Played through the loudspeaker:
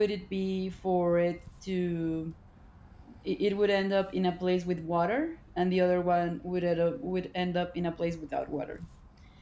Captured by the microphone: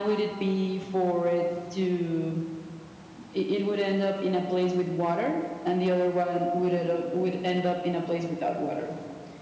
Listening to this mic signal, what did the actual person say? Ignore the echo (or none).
none